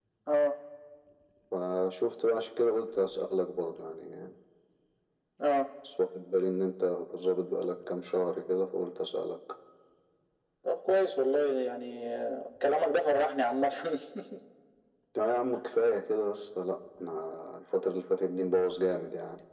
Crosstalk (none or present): none